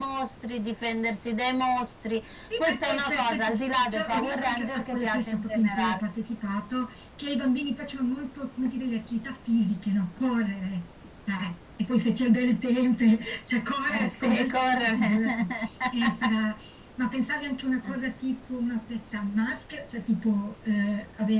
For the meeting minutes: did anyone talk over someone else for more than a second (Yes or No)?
Yes